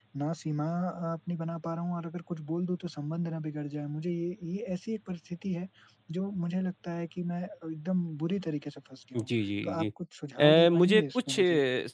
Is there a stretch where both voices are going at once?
Yes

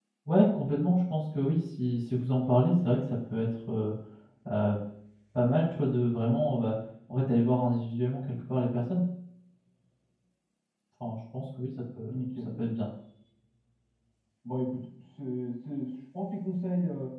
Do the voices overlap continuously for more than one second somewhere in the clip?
No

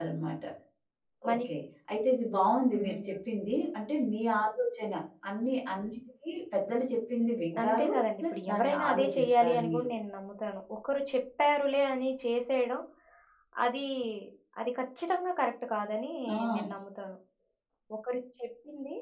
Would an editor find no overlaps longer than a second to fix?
No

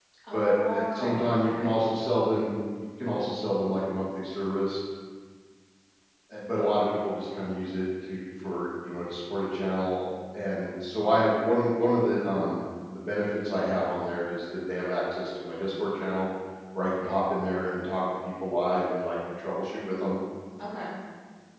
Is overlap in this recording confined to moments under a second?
No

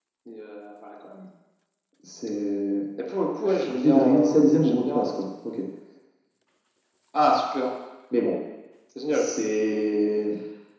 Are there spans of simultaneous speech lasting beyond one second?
Yes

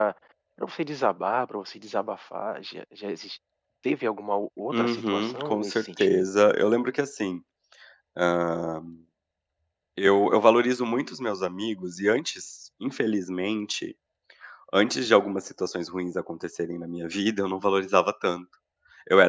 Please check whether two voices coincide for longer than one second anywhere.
Yes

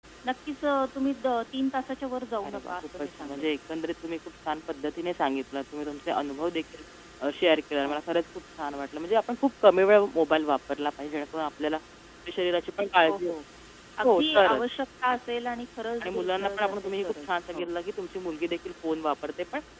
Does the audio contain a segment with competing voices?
Yes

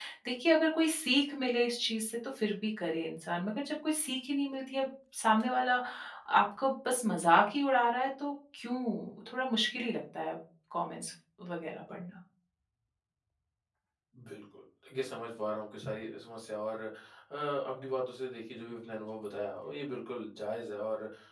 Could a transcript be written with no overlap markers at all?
Yes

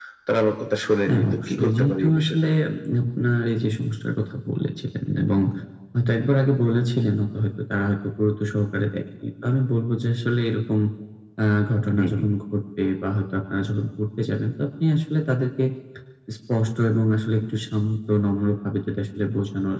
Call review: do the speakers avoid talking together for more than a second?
No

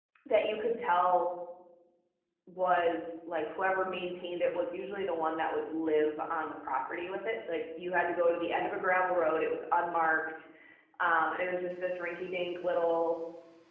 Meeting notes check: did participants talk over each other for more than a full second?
No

